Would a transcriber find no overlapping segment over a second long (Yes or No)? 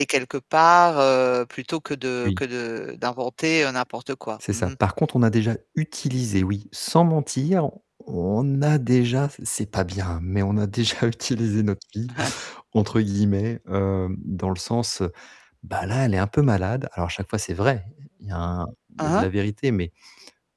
Yes